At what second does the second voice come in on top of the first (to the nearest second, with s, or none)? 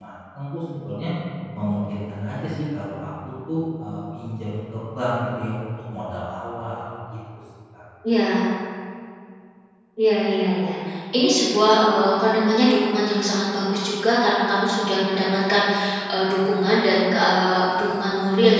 none